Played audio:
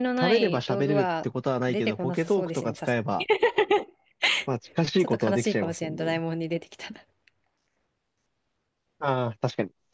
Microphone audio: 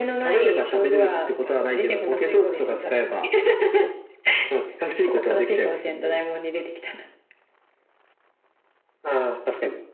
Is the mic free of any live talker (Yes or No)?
No